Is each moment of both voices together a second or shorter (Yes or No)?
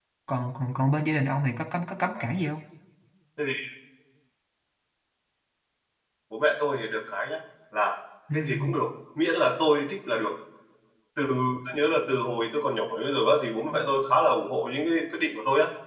Yes